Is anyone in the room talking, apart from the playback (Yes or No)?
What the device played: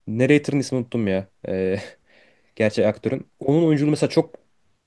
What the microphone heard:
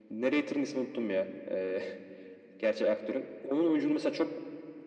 No